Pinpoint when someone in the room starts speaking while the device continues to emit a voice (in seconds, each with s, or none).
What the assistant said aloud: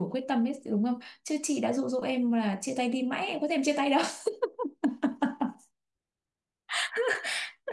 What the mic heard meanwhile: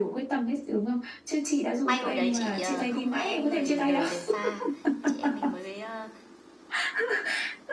1.8 s